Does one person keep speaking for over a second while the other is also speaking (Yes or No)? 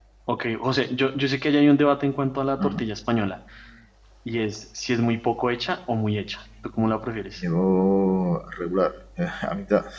No